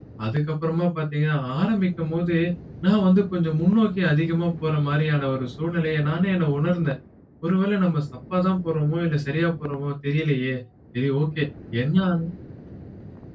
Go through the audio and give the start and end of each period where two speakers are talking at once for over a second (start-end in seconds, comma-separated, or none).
none